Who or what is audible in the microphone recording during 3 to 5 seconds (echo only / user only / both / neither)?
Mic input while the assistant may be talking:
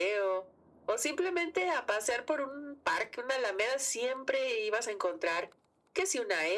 echo only